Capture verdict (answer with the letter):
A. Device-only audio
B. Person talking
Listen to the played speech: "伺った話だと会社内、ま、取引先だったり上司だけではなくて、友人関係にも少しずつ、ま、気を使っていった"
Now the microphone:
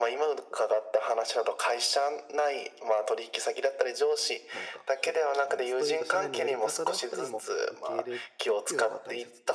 B